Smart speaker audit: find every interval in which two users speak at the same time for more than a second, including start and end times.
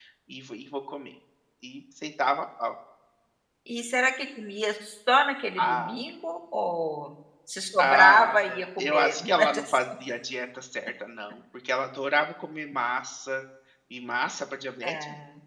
7.8-9.8

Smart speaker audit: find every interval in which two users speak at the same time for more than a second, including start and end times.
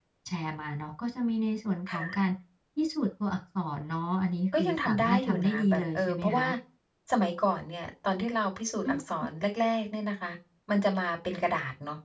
4.6-6.5

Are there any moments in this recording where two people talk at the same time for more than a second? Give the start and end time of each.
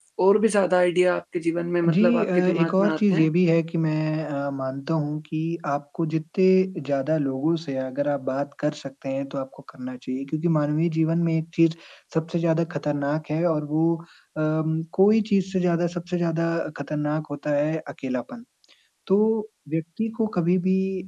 1.9-3.3

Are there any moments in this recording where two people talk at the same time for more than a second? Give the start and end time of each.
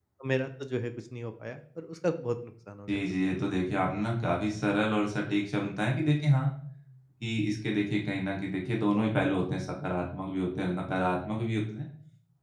none

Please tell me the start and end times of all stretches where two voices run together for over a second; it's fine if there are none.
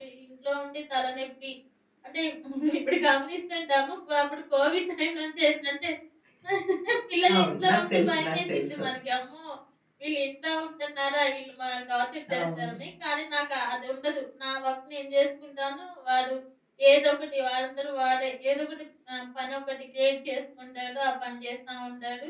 7.3-8.8

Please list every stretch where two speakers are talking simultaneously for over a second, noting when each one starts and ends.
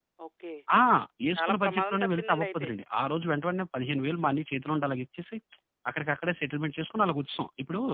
1.4-2.7

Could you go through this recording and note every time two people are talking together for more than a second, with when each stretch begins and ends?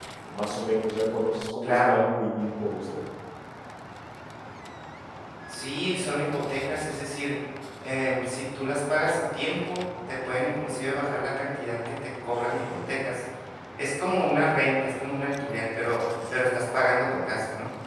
none

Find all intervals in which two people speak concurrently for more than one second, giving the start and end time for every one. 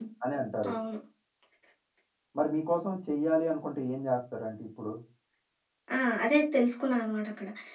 none

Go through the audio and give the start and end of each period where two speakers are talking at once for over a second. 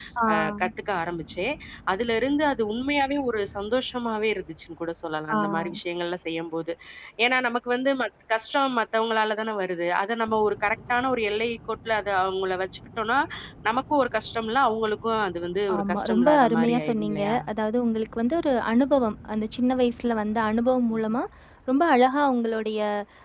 15.8-17.4

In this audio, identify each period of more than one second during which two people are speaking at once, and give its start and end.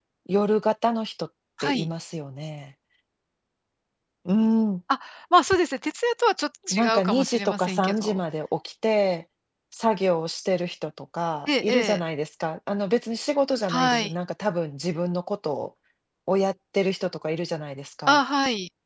6.7-8.2

